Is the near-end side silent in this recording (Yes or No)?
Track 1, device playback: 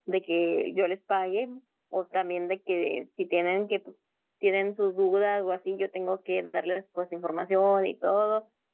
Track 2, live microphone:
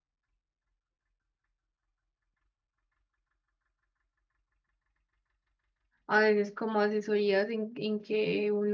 No